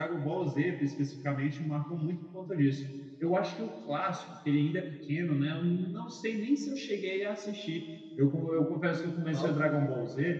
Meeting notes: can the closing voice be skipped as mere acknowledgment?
Yes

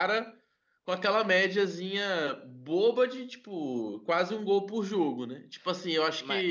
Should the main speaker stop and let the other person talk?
Yes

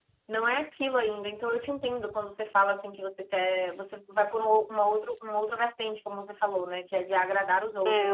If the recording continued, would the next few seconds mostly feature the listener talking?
Yes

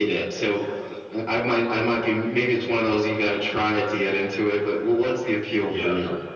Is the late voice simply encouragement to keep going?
No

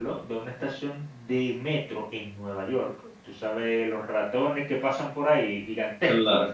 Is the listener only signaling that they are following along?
Yes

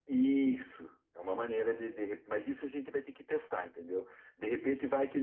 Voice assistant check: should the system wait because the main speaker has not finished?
Yes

